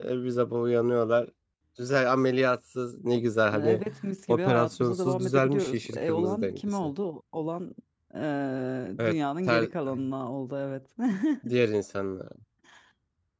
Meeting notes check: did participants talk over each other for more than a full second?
Yes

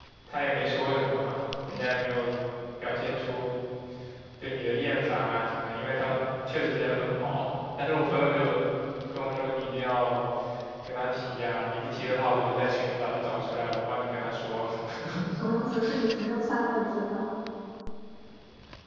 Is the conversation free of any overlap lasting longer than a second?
Yes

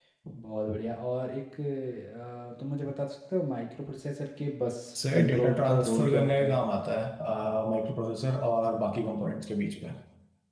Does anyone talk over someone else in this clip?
Yes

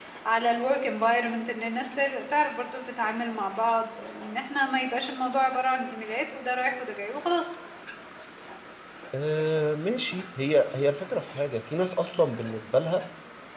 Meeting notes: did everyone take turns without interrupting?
Yes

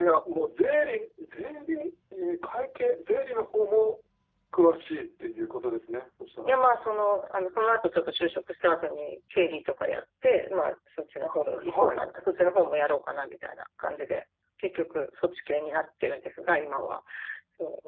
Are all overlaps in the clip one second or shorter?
Yes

